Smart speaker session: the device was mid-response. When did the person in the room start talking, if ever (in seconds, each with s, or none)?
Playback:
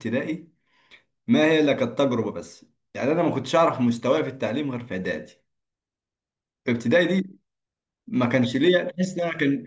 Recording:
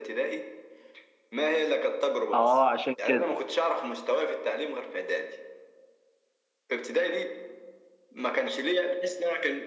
2.3 s